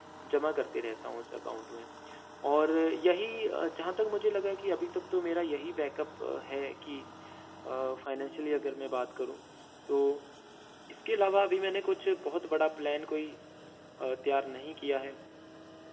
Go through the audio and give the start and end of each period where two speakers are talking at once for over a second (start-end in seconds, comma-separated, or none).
none